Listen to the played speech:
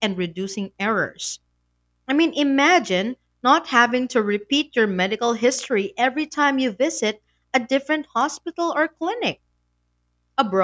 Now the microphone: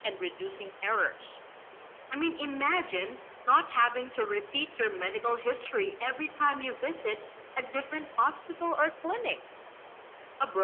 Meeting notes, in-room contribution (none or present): none